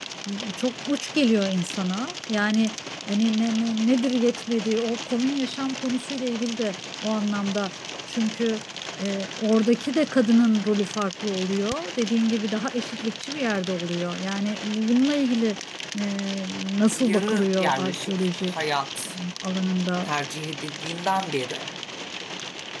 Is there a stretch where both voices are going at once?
Yes, from 17.0 s

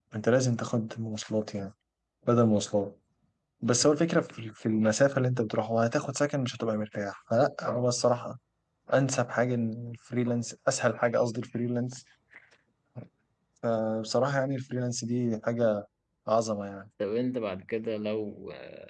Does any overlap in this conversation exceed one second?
No

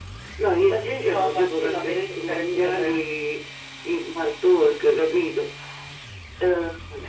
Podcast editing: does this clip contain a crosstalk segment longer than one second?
Yes, from 0.7 s

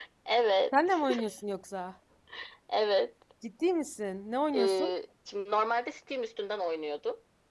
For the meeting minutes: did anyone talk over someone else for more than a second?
No

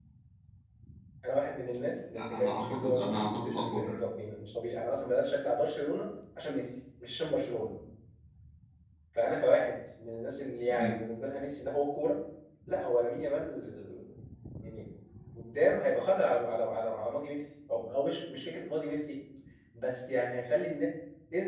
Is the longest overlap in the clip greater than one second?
Yes, from 2.1 s

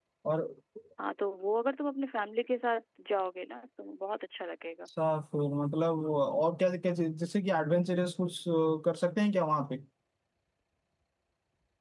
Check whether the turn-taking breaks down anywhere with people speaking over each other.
No

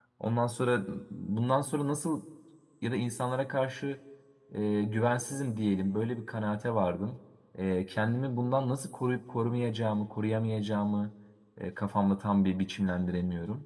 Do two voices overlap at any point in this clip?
No

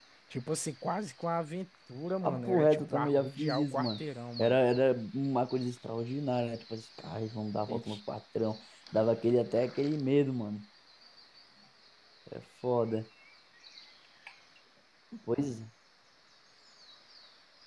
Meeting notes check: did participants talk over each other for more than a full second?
Yes, from 2.2 s

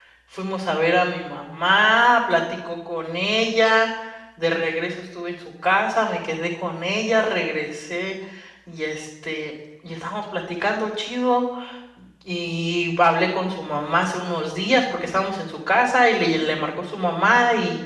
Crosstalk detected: No

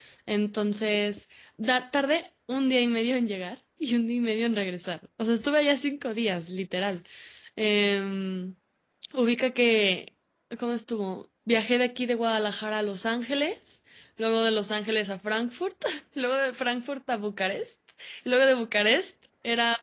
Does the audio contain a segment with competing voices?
No

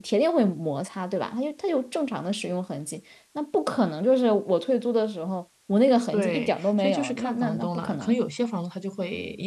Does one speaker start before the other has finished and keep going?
Yes, from 6.1 s

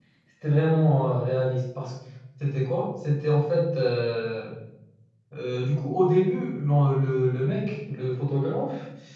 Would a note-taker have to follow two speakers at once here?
No

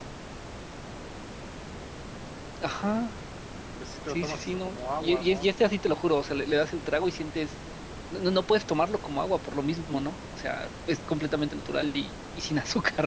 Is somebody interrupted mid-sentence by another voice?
Yes, from 4.1 s

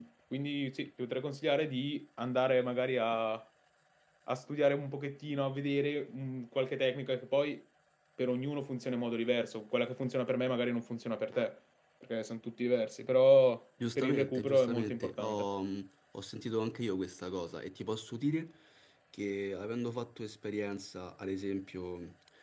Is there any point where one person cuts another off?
Yes, from 13.8 s

